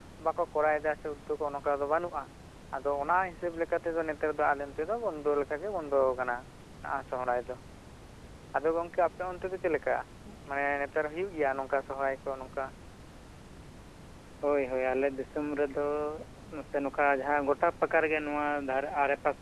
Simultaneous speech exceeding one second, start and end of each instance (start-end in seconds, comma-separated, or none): none